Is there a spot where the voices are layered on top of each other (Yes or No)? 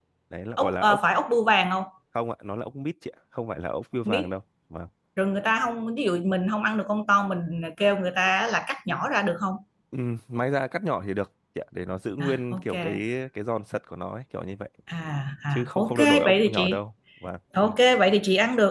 Yes